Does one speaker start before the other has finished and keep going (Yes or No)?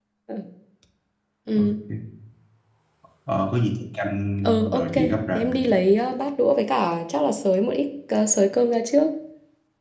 Yes